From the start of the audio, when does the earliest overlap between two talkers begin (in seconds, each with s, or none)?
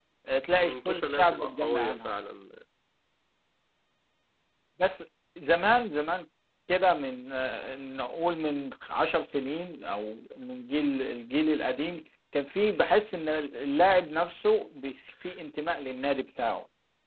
0.6 s